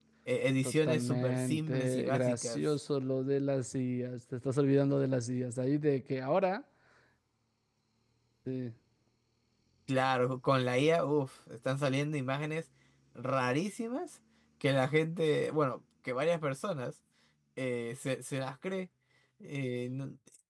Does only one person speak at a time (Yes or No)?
No